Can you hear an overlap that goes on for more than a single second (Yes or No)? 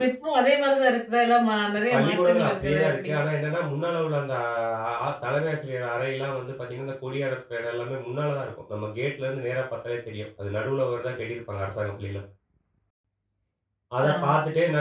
Yes